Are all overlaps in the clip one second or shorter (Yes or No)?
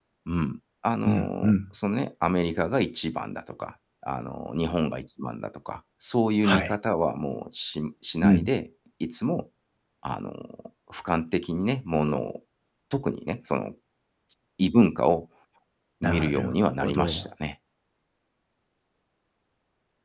No